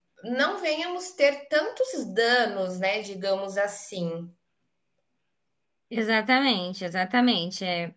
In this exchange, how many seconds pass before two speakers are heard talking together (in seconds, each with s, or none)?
none